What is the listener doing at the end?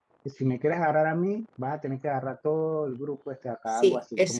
taking over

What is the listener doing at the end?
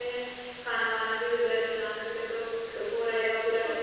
taking over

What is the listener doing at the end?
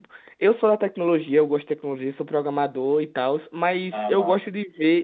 listening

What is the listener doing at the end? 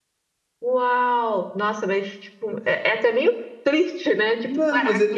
taking over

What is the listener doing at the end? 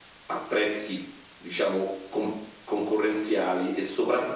listening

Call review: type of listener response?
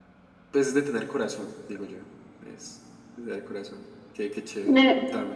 taking over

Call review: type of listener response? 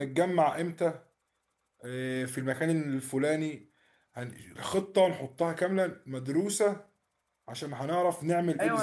taking over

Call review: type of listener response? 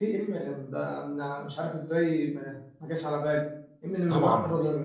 listening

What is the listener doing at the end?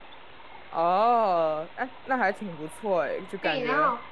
taking over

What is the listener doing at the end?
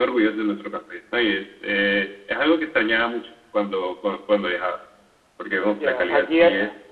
taking over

